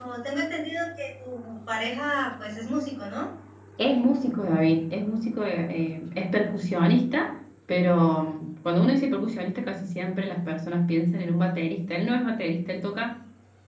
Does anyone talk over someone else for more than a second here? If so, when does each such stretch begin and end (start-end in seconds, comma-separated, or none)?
none